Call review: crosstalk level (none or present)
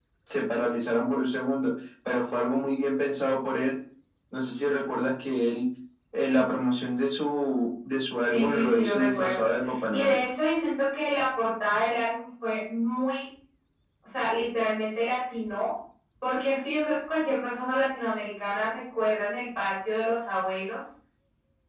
present